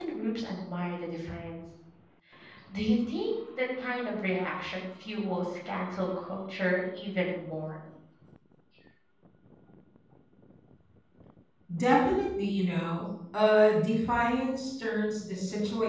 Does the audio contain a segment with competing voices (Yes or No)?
No